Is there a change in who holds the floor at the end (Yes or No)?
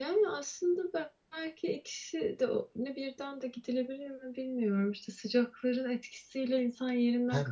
Yes